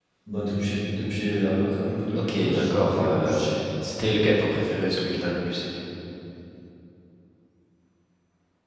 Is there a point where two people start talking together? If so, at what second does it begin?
2 s

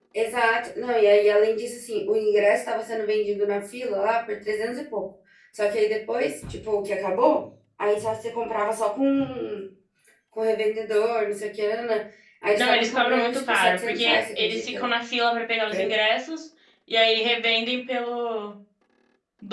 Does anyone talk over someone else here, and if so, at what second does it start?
13 s

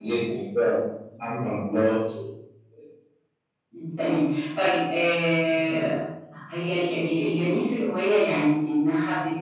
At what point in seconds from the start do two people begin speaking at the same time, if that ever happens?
none

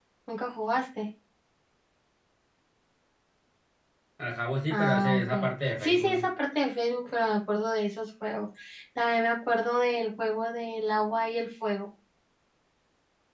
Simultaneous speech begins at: 5 s

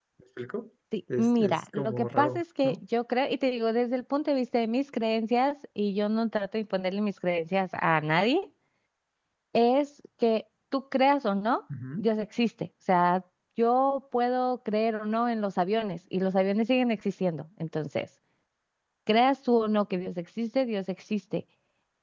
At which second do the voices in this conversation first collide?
1 s

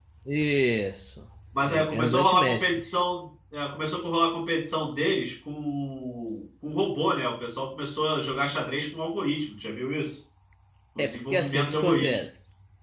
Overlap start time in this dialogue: 2 s

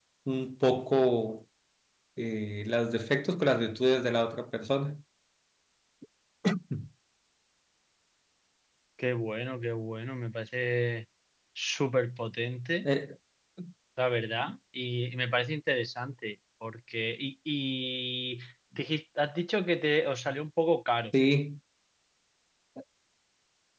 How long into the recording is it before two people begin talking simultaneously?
none

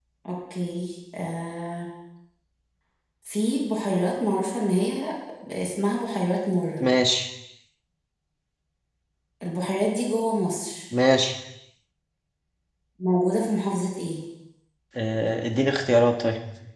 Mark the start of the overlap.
none

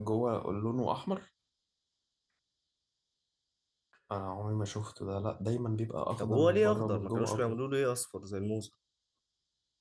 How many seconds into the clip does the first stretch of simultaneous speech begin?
6 s

